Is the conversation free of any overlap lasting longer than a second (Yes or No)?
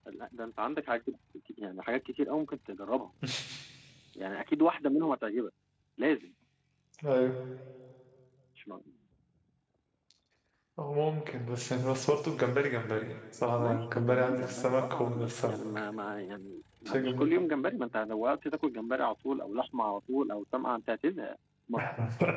No